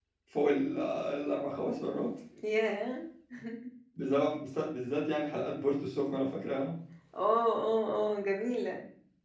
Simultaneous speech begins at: none

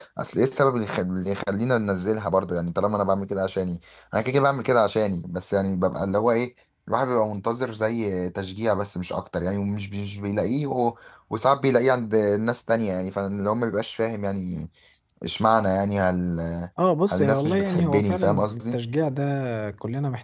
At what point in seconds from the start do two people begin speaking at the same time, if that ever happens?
17.1 s

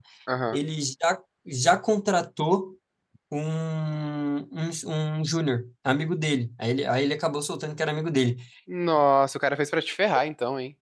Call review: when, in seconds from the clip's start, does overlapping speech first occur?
none

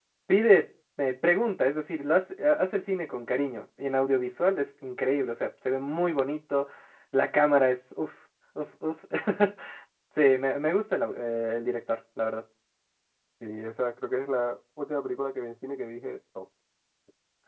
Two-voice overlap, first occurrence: none

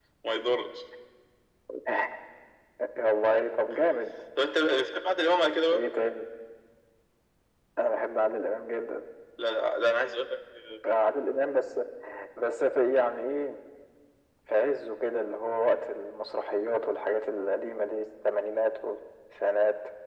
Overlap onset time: none

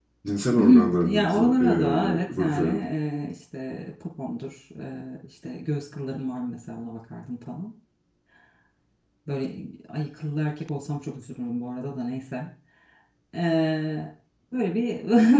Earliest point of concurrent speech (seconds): 0.6 s

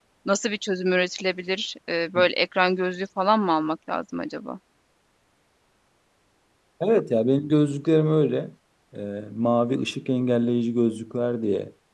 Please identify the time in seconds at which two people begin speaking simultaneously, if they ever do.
none

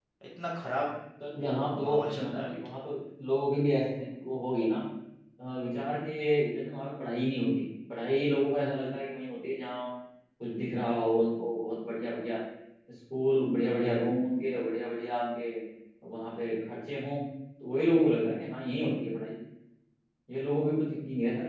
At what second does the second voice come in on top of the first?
1.4 s

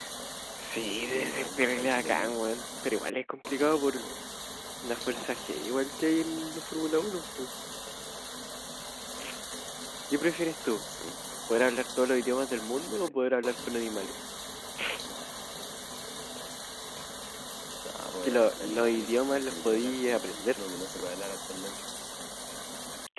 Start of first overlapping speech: 1.1 s

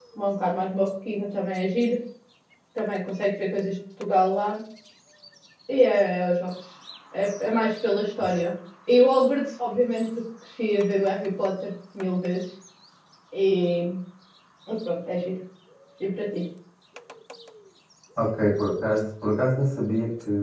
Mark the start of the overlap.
none

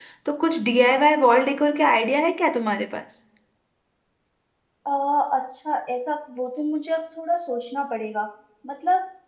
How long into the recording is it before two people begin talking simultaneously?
none

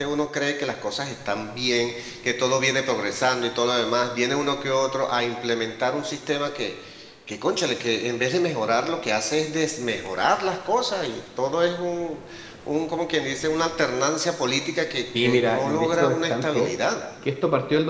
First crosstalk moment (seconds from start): 15.1 s

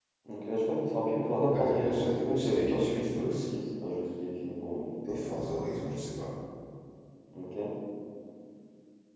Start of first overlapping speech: 1.5 s

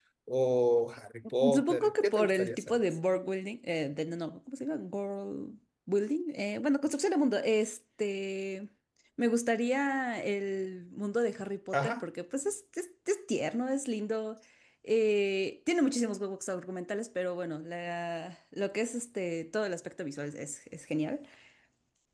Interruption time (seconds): 1.5 s

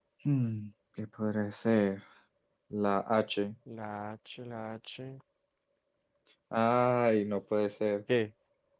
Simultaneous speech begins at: none

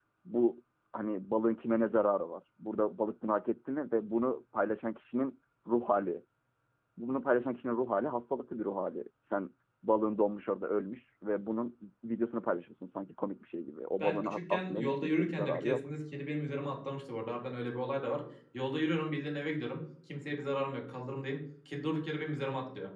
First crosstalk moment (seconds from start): 14.0 s

